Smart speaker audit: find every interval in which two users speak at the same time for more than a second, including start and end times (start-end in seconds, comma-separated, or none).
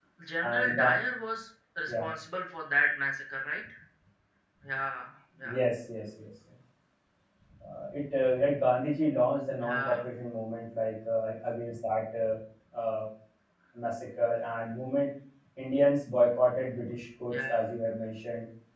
none